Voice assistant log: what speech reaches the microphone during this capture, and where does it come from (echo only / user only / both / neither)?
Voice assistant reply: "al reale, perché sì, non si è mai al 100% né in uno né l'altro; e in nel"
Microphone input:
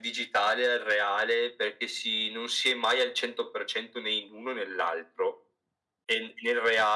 echo only